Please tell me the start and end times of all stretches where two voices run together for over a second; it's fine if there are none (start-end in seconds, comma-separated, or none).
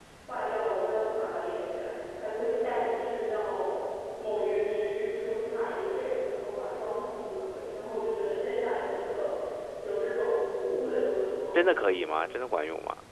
none